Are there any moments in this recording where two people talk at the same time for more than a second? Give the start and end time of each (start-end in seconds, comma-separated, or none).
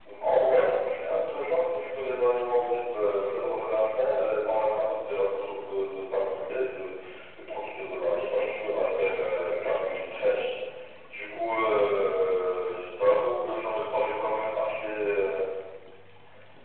none